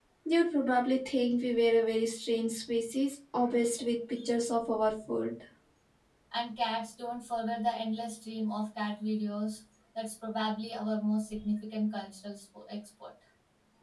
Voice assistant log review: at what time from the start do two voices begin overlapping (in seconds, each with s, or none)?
none